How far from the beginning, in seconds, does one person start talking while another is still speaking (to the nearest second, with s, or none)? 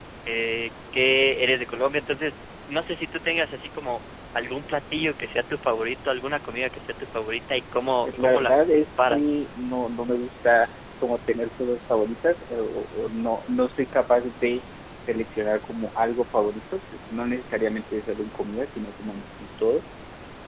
8 s